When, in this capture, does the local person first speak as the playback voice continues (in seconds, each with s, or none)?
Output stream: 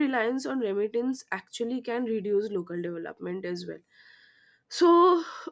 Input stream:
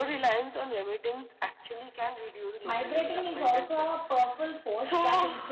2.6 s